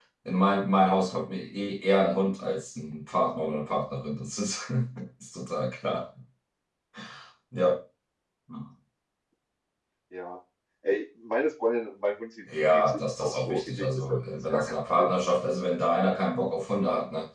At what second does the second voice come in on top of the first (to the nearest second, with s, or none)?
12 s